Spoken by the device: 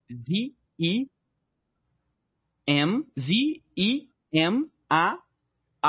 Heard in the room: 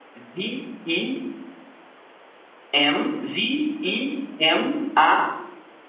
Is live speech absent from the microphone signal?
Yes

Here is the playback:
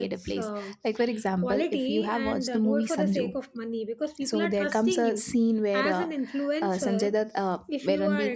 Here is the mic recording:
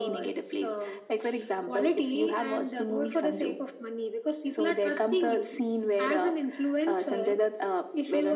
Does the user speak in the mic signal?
No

